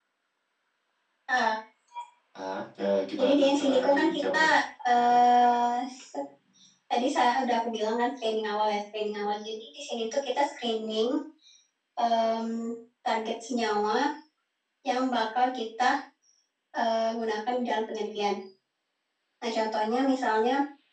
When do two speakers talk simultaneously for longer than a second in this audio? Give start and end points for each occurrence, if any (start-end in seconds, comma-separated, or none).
3.2-4.4